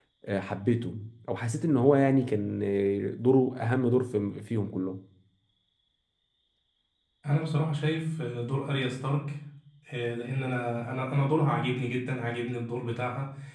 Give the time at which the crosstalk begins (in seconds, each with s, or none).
none